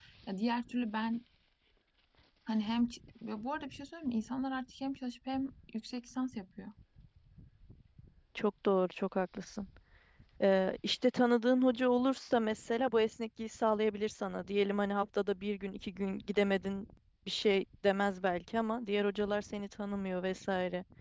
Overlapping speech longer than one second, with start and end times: none

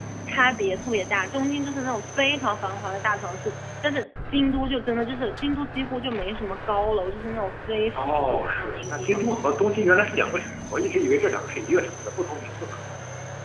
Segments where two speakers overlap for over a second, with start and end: 7.9-9.2

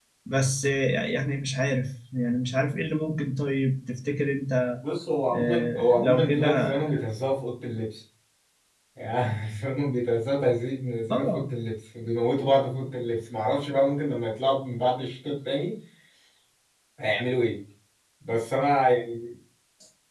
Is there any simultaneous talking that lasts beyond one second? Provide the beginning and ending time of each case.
5.3-6.7

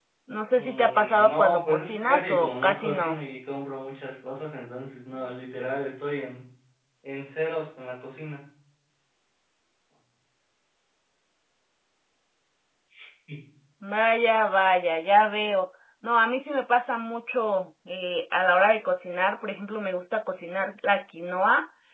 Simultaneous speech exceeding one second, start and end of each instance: 0.5-3.2

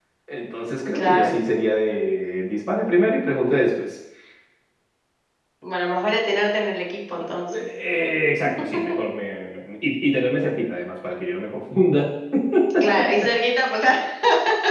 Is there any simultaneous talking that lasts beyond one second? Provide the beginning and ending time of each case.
none

